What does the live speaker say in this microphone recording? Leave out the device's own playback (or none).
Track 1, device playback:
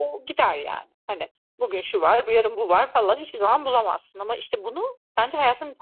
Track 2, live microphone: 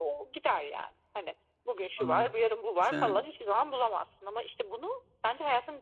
Anlı Sen